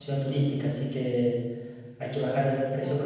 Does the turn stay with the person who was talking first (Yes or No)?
Yes